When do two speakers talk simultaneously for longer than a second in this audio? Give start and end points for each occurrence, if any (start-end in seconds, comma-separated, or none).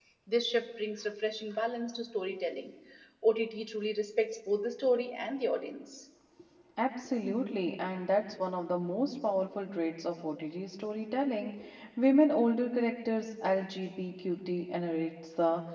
none